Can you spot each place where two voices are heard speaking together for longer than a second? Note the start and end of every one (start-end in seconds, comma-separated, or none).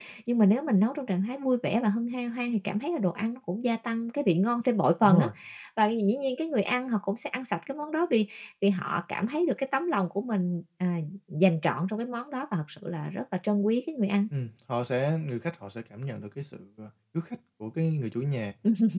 none